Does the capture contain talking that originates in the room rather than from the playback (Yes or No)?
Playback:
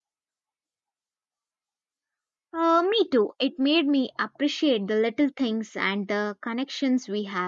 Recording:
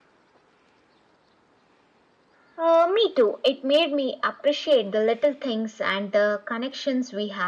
No